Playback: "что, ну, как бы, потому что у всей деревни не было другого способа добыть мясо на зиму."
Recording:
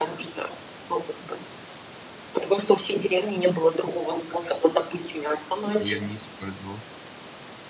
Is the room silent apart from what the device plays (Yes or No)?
No